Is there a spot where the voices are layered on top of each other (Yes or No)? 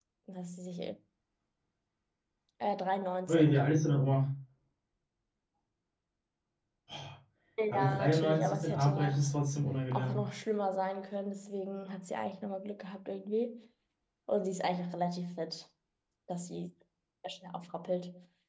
Yes